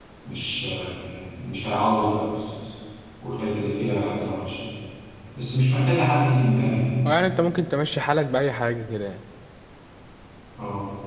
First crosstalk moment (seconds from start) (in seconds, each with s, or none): none